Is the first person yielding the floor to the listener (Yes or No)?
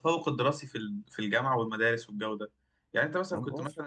No